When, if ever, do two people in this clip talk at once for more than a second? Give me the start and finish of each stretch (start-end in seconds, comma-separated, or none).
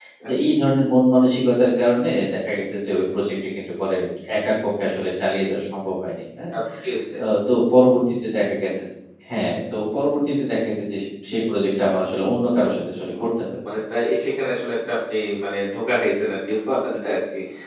none